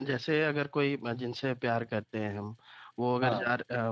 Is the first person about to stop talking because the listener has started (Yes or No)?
No